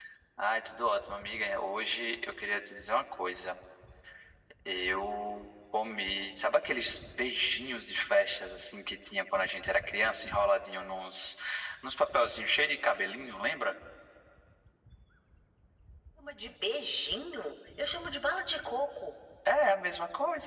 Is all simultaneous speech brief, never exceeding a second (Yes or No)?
Yes